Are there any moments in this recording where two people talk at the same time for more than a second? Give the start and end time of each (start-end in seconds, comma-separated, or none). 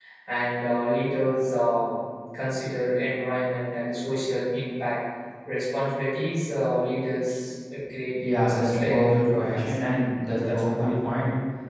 8.2-9.7